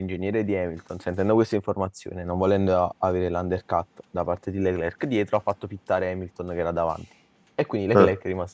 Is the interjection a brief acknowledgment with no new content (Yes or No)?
Yes